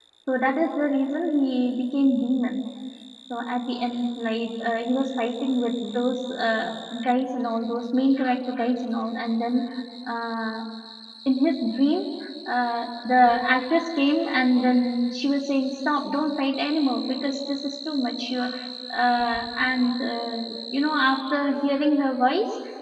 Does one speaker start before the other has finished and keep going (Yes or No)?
No